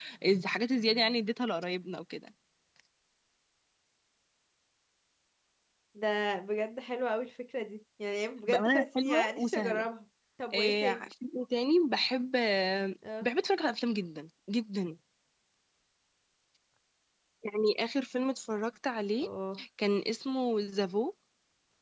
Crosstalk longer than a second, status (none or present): present